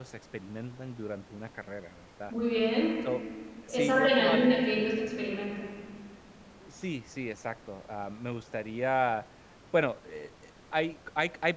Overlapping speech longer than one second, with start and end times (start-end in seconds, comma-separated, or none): 3.7-4.9